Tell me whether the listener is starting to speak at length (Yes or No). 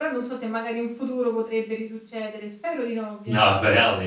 Yes